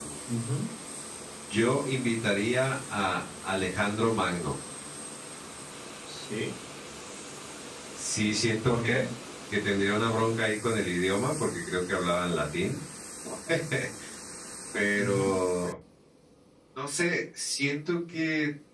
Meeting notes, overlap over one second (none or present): none